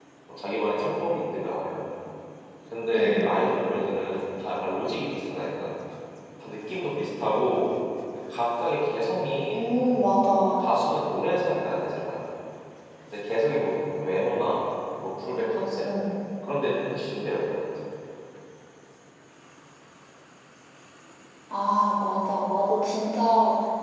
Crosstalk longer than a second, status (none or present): none